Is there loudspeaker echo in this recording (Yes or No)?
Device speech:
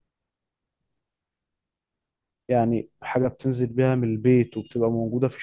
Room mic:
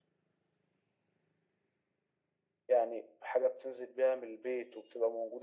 Yes